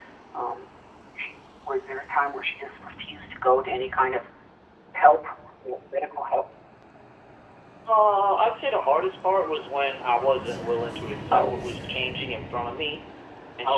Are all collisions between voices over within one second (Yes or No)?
Yes